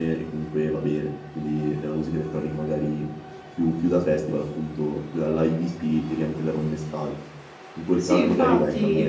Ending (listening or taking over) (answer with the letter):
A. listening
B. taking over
B